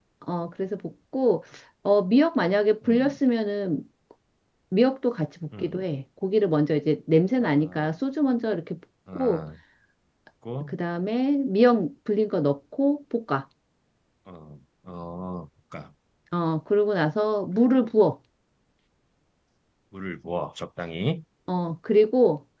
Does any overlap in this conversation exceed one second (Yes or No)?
No